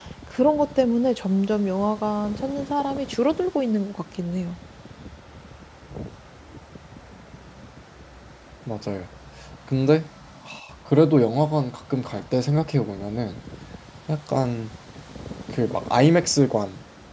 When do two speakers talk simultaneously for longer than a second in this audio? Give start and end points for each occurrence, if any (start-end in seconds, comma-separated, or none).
none